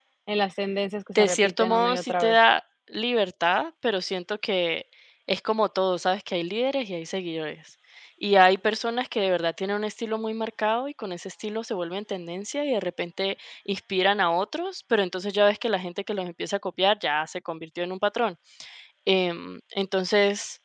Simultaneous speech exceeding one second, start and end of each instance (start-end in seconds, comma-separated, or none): 1.1-2.4